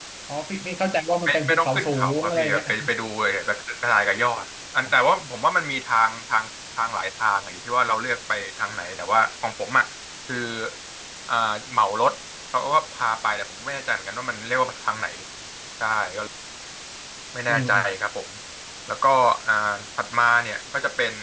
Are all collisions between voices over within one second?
No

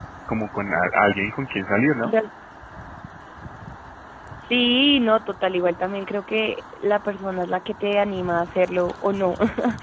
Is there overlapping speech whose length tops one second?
No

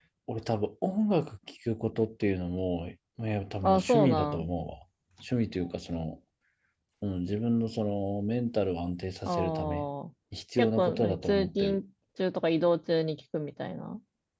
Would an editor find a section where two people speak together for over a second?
Yes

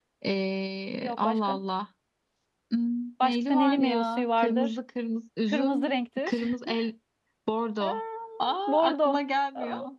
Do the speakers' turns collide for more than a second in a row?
Yes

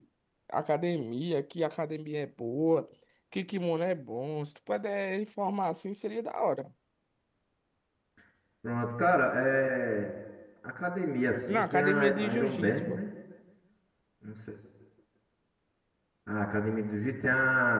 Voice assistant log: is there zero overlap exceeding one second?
No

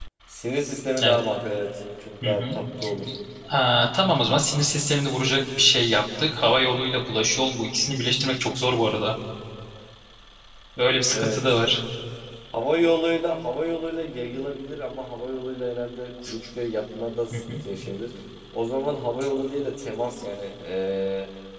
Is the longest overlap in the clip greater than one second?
No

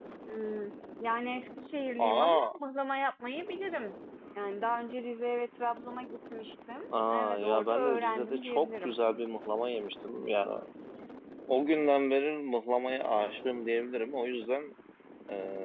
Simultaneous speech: Yes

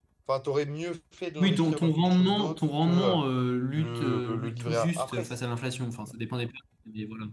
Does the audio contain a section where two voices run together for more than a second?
Yes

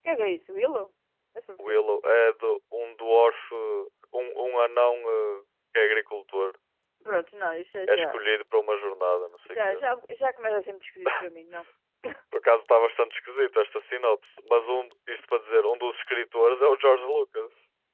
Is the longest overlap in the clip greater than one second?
No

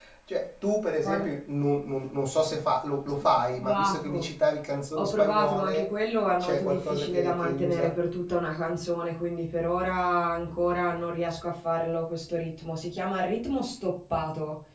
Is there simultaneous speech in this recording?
Yes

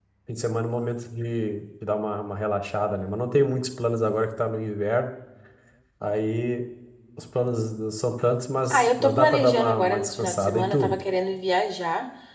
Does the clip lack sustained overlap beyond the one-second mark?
No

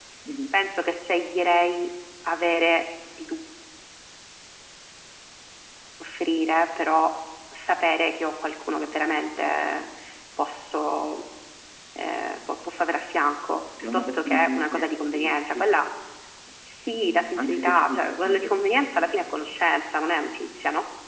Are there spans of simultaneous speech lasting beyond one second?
Yes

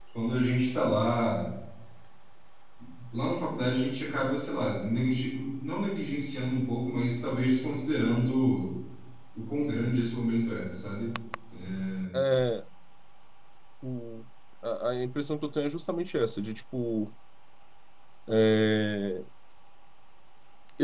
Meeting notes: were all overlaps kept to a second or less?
Yes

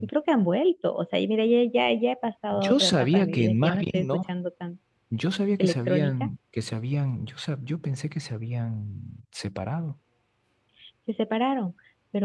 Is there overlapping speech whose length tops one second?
Yes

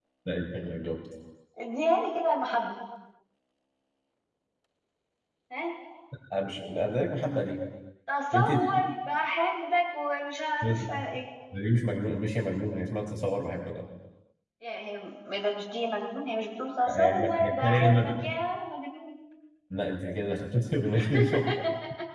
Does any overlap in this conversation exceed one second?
Yes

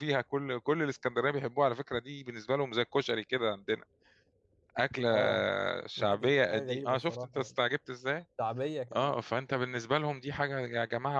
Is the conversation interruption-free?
No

